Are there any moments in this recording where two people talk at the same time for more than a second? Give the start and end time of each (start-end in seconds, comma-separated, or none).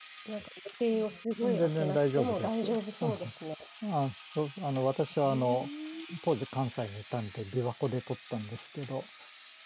1.4-3.3